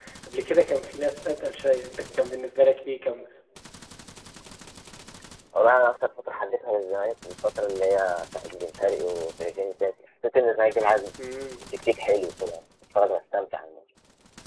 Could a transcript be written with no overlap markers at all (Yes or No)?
Yes